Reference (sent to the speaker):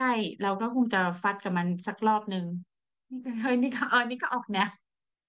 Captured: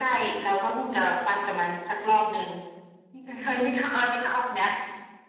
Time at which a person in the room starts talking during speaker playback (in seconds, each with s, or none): none